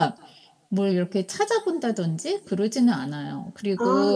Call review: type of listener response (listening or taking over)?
listening